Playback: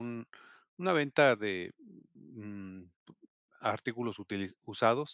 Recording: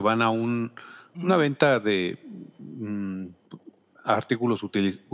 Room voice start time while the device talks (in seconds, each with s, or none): 1.1 s